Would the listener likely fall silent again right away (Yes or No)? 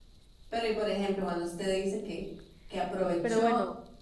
Yes